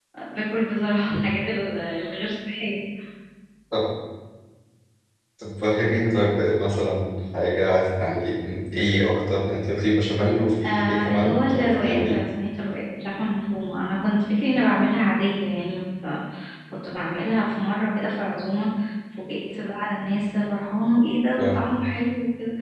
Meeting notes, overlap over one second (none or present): present